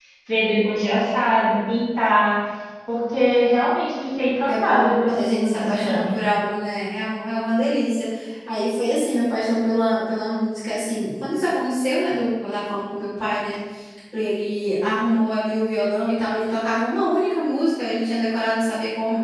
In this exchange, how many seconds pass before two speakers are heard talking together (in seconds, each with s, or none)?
4.5 s